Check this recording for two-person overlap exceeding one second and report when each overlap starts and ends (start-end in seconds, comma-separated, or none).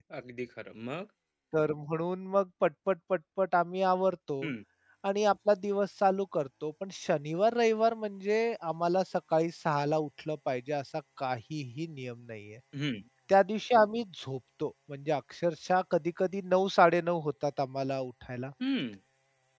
none